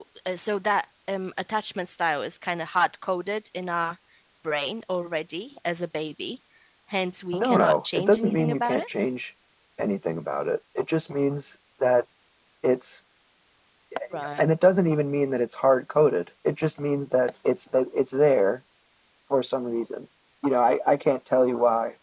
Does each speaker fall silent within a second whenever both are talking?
No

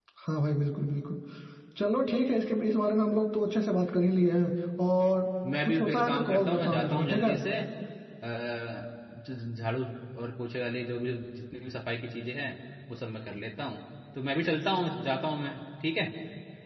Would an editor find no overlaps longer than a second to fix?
No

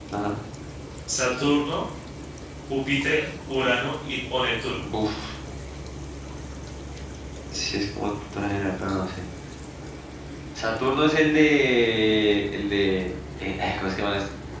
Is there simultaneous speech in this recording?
No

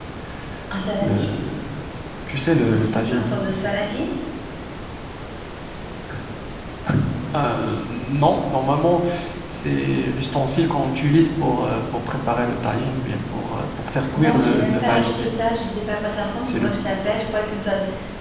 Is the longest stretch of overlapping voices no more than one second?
No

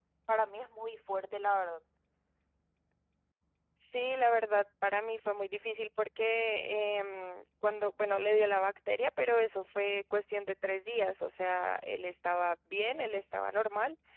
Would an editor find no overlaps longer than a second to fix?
Yes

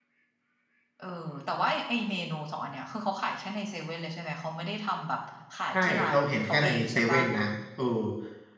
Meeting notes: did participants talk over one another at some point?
Yes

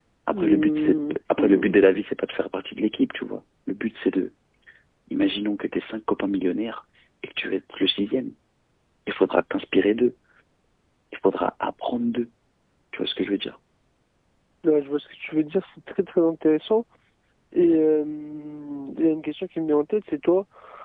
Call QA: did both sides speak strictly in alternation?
No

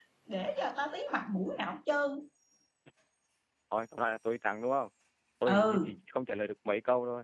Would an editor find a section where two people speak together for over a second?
No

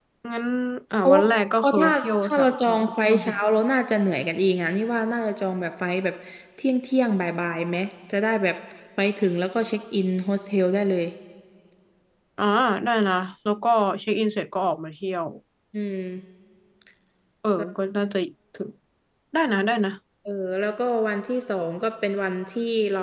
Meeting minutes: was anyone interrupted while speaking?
Yes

